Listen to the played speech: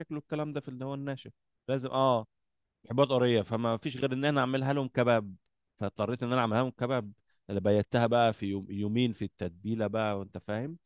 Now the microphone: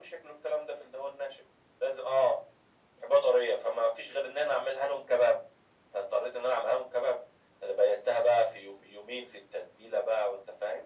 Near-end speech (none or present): none